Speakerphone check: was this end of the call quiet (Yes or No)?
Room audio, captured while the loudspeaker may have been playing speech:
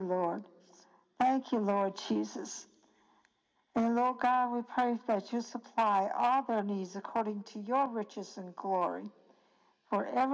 Yes